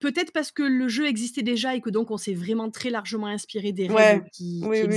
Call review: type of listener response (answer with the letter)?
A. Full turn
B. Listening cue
A